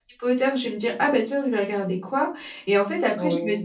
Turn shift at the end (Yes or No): No